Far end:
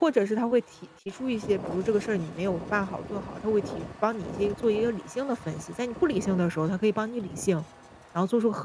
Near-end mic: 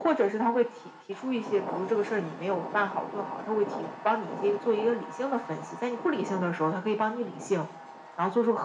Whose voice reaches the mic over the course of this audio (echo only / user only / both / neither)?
echo only